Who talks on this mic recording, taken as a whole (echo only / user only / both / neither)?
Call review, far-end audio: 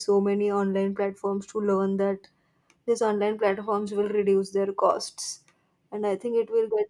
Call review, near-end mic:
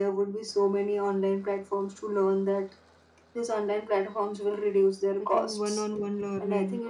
both